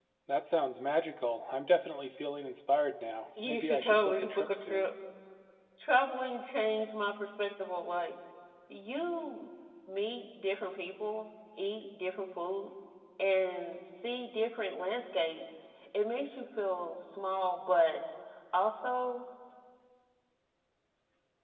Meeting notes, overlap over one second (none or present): present